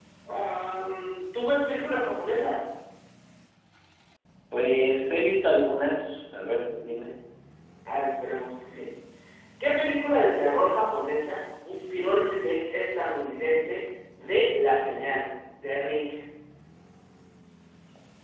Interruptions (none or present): none